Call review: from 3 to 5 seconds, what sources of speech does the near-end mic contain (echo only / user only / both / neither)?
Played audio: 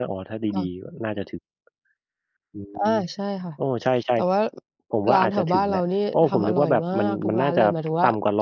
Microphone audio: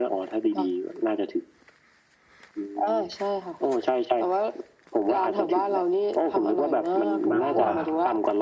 echo only